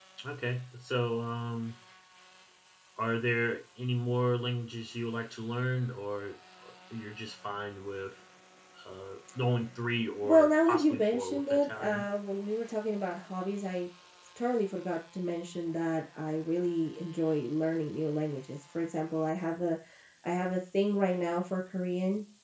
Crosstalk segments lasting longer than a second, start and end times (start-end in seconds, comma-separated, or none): 10.2-12.0